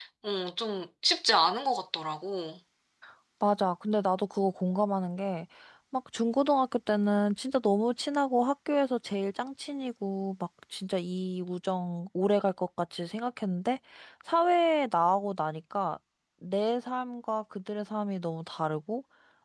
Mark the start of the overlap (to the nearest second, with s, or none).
none